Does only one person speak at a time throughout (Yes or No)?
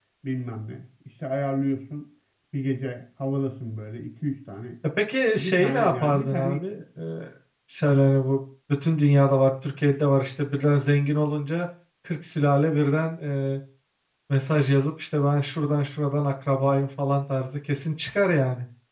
No